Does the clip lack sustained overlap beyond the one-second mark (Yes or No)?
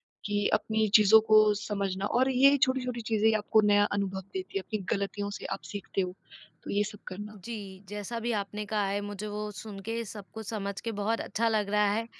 Yes